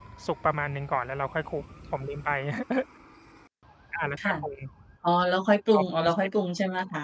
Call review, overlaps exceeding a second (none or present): none